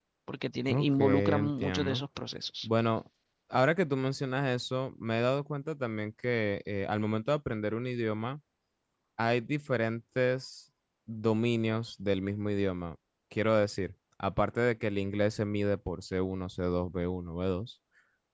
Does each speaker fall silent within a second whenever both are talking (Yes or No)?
No